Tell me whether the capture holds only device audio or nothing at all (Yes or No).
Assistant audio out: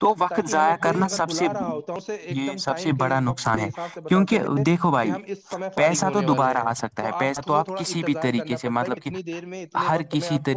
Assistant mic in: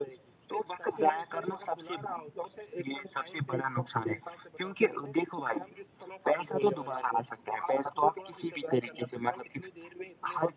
Yes